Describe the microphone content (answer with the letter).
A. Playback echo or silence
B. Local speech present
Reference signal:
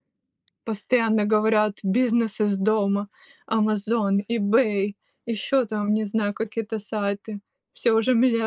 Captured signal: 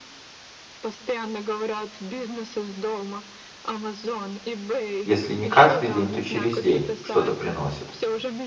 B